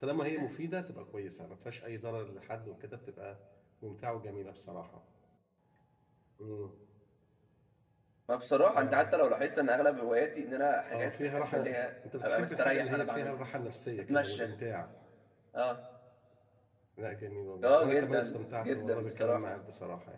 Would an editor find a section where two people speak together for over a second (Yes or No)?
Yes